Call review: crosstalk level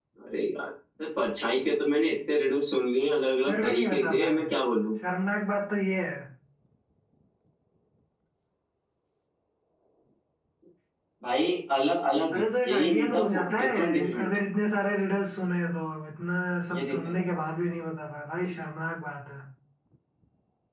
present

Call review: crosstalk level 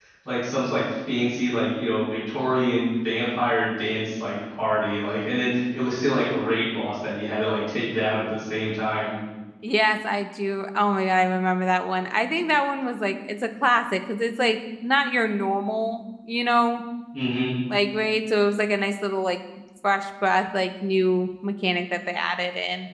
none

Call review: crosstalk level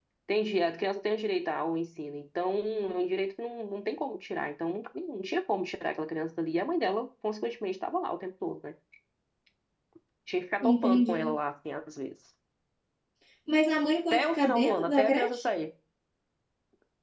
present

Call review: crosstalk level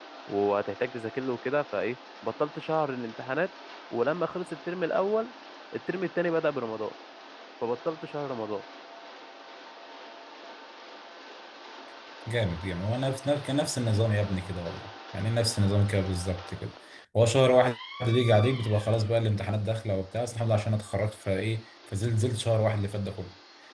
none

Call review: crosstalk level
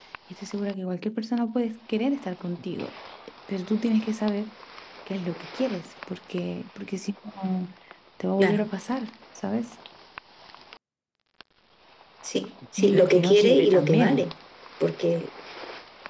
present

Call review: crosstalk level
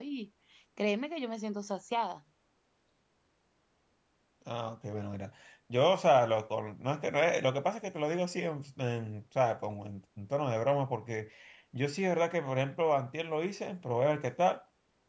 none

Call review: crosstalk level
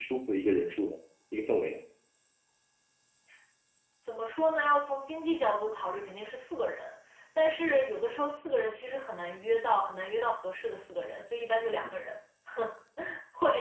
none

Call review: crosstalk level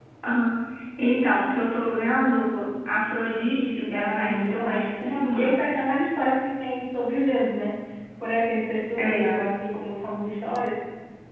present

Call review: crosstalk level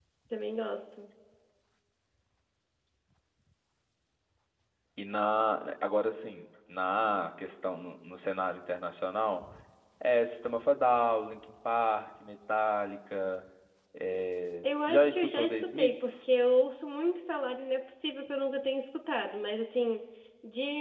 present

